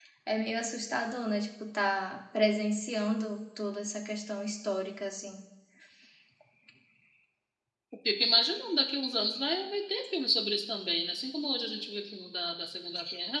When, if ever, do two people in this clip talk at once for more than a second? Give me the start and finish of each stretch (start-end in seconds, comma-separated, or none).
none